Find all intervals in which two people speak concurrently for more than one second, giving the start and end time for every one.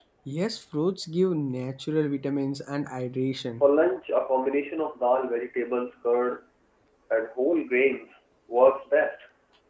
none

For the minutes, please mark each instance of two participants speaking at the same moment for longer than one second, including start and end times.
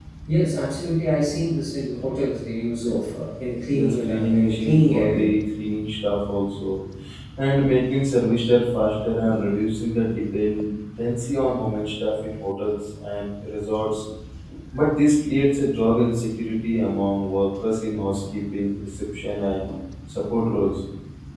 3.7-5.2

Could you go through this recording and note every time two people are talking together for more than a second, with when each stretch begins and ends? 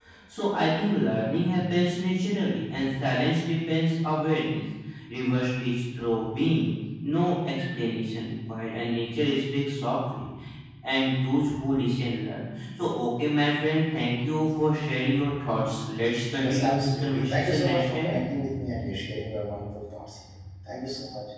16.4-18.1

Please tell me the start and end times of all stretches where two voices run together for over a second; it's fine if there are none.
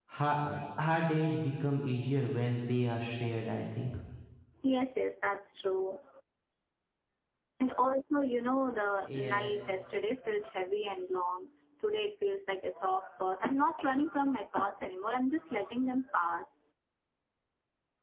none

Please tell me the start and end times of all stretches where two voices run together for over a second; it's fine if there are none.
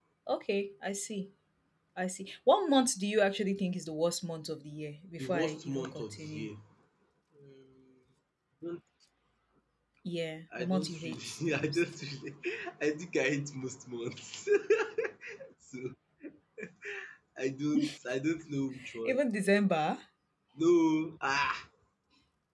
5.2-6.5, 10.6-11.8

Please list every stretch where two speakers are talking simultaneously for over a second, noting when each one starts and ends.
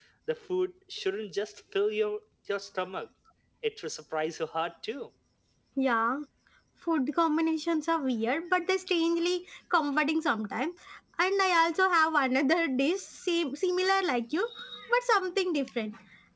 none

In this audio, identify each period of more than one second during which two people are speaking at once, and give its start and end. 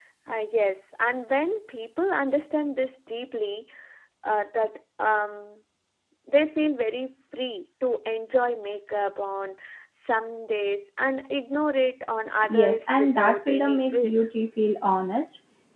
12.5-14.1

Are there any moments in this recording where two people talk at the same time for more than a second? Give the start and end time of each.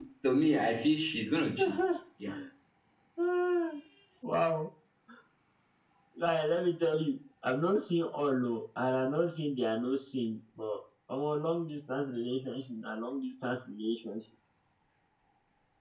none

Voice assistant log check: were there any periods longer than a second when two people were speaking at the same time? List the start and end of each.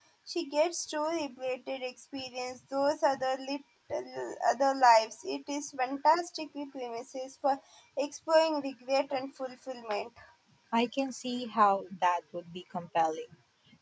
none

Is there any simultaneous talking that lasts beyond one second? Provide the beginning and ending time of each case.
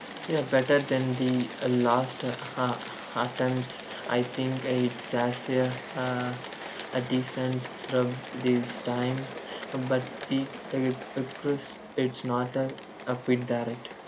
none

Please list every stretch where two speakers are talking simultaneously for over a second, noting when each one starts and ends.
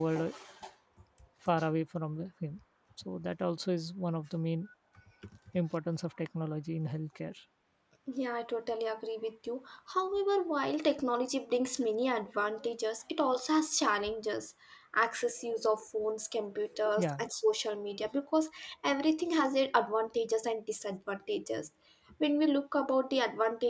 none

